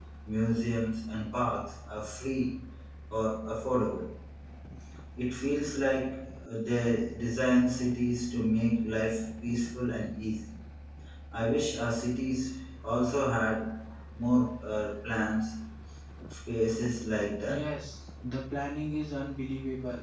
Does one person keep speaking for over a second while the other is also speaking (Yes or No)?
No